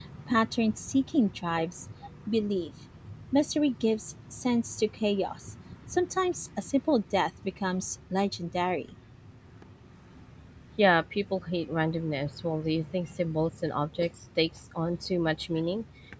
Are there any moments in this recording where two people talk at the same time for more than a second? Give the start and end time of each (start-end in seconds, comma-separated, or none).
none